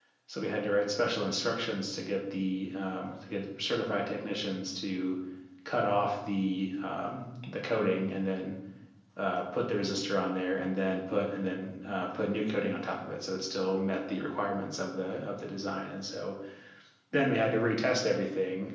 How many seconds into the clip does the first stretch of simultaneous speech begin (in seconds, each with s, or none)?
none